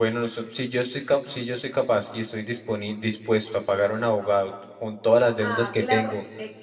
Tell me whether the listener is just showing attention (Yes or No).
No